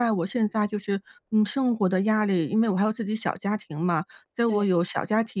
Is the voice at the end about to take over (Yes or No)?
No